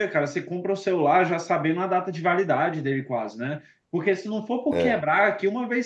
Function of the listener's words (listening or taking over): listening